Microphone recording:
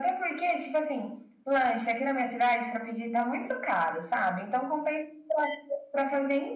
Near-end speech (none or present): none